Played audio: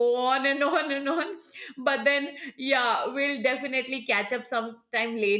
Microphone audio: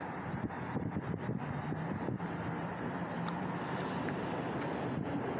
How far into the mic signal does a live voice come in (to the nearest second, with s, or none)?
none